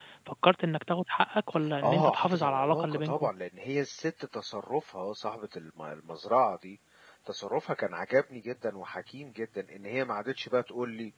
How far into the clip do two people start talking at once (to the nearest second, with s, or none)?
2 s